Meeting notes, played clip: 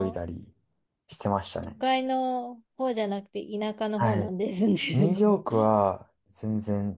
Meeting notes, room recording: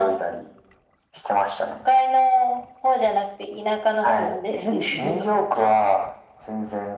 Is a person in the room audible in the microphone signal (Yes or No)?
No